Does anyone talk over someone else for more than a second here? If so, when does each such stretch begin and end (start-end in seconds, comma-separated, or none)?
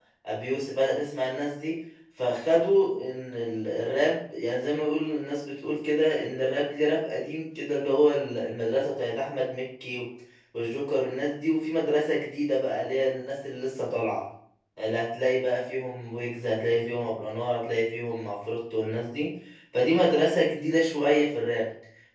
none